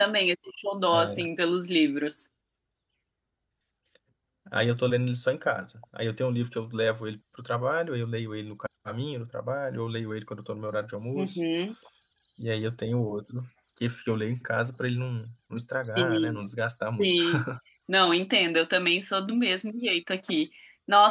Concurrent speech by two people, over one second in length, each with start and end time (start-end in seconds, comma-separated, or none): none